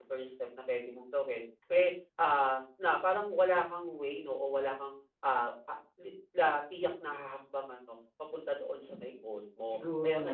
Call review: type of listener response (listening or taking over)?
listening